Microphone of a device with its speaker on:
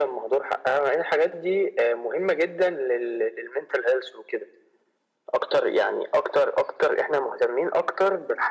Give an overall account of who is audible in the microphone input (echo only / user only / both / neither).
echo only